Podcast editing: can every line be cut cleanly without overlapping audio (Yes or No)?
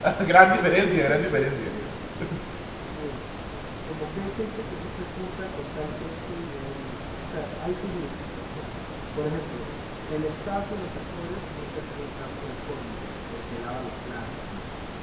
No